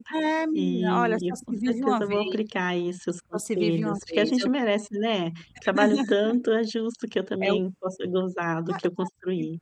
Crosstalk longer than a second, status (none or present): present